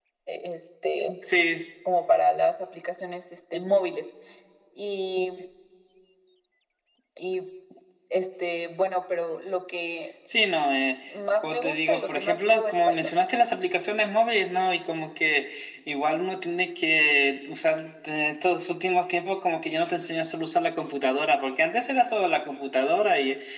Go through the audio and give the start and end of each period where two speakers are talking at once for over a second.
11.4-13.1

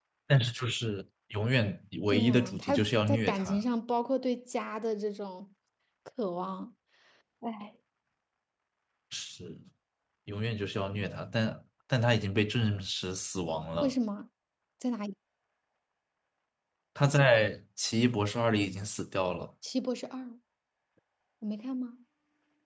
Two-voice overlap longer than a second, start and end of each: 2.1-3.6

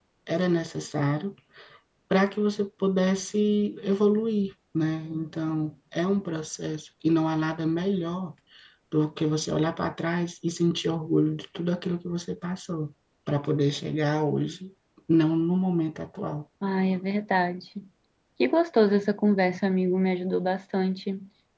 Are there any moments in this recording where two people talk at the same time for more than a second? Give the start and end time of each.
none

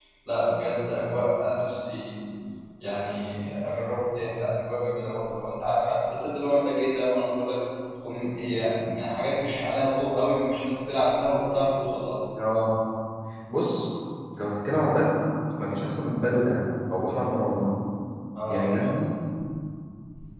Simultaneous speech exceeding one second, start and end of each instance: none

